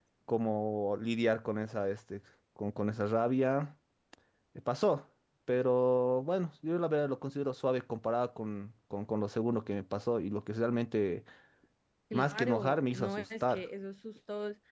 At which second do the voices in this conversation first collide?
12.1 s

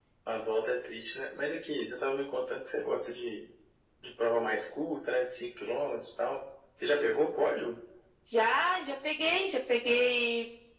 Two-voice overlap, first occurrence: none

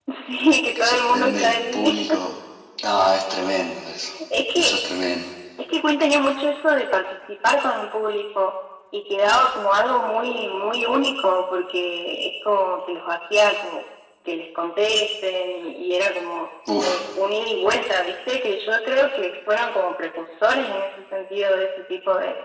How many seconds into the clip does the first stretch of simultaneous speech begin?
0.8 s

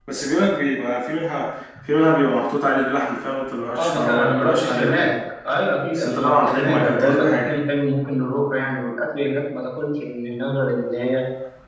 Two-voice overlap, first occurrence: 3.8 s

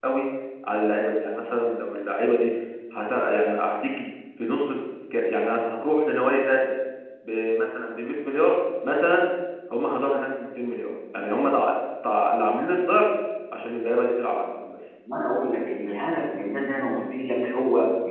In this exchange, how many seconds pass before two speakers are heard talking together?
none

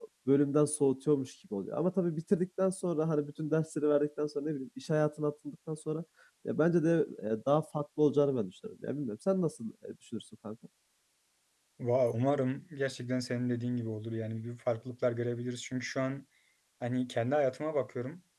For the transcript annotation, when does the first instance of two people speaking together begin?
none

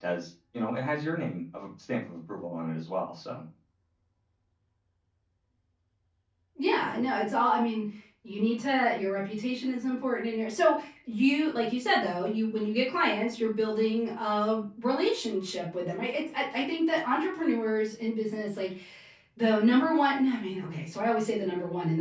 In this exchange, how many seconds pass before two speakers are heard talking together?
none

